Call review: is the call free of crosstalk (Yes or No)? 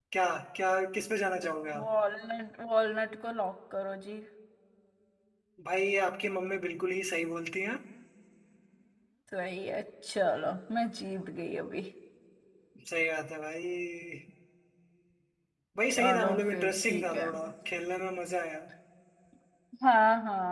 No